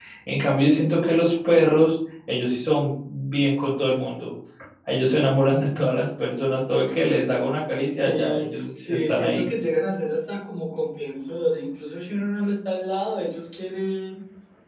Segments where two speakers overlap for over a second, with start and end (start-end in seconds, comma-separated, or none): 8.0-9.5